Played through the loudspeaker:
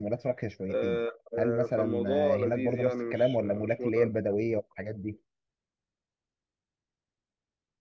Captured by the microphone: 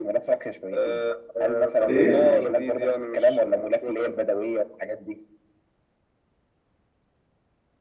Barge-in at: 1.9 s

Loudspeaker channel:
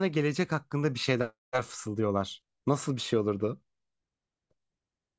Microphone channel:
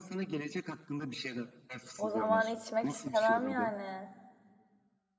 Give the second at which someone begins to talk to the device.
2.0 s

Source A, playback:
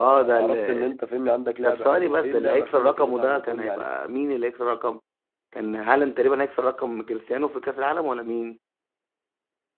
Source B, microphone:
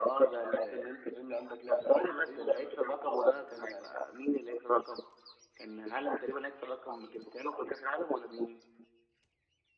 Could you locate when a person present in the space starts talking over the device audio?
none

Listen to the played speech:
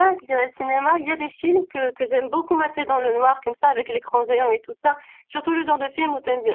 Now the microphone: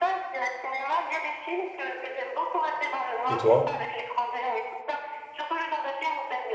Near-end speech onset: 3.3 s

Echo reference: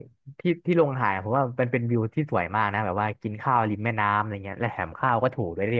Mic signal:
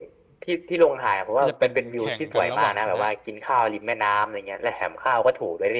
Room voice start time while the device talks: 1.4 s

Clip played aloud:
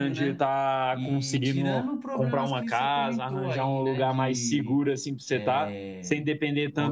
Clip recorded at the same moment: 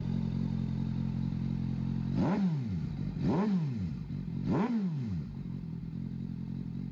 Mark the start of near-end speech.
none

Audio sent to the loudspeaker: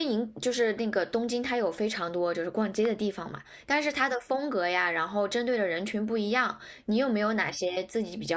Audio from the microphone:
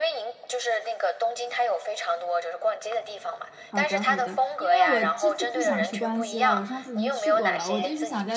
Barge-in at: 3.6 s

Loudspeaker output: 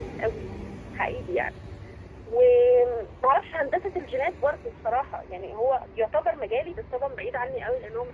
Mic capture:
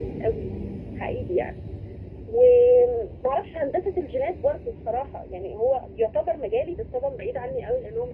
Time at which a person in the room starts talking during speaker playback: none

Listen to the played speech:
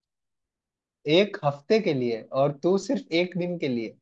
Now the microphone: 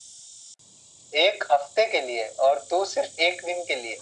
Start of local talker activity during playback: none

